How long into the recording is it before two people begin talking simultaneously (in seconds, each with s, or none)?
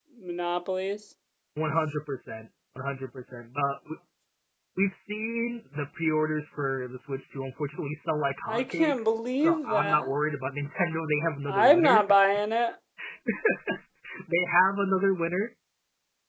8.4 s